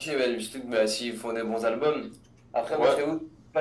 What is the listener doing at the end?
listening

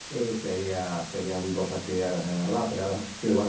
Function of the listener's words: listening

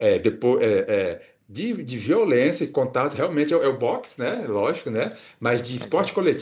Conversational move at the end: listening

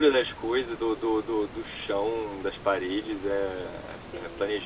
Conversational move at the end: listening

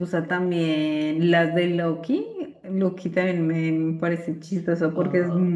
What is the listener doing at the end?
listening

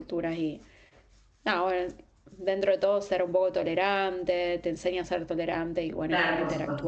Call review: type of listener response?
taking over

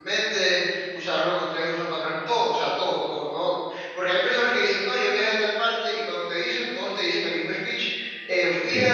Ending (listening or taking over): listening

